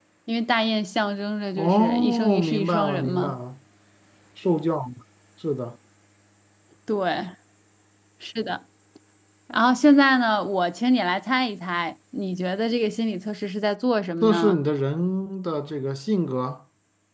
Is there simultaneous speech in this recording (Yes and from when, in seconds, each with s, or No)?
Yes, from 1.6 s